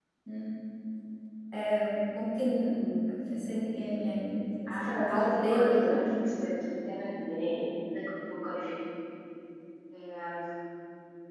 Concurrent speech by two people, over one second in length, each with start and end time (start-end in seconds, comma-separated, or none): 4.7-5.9